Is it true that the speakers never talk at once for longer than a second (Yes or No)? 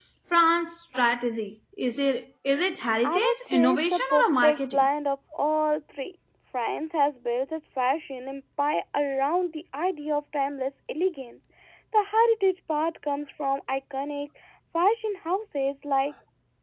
No